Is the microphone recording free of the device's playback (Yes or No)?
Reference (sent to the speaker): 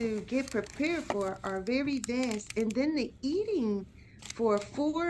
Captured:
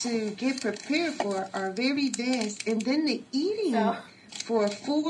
No